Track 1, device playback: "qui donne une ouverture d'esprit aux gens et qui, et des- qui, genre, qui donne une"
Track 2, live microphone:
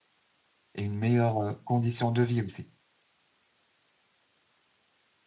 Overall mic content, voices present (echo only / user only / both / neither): user only